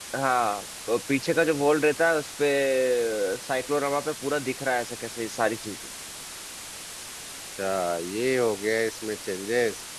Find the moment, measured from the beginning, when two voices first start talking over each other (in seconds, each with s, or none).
none